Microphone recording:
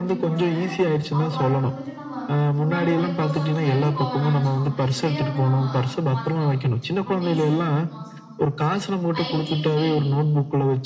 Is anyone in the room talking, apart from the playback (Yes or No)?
Yes